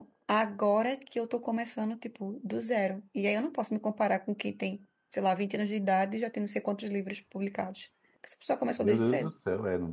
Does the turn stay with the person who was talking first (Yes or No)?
No